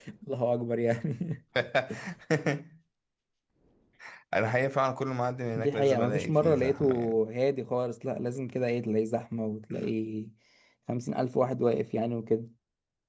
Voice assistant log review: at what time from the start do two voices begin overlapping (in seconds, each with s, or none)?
5.6 s